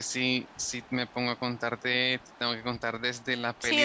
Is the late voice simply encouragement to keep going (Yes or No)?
No